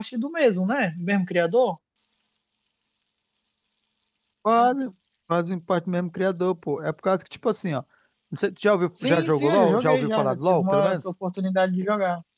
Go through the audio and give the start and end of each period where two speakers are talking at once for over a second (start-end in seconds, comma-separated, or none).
9.0-11.0